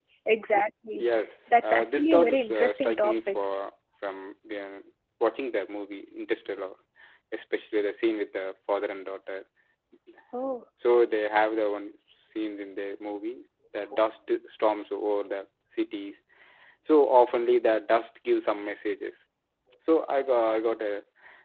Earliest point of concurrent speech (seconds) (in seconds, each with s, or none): 1.7 s